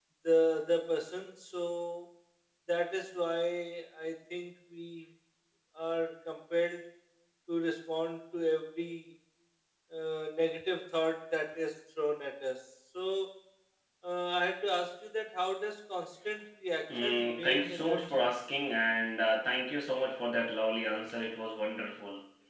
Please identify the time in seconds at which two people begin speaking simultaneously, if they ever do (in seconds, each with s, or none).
16.9 s